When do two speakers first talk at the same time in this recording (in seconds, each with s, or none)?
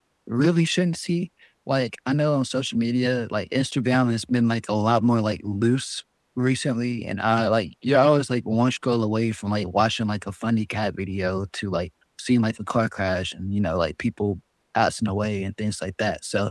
none